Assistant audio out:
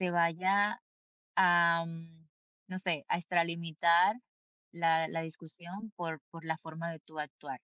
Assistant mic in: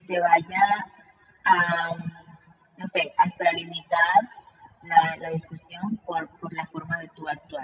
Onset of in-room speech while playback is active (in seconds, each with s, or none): none